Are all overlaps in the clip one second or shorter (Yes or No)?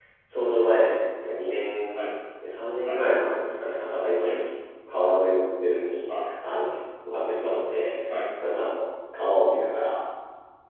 Yes